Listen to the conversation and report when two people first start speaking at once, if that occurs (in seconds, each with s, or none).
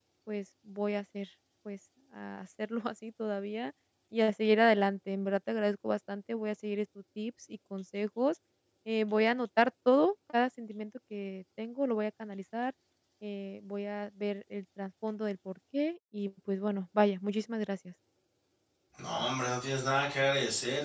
none